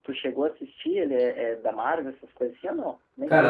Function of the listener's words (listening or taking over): taking over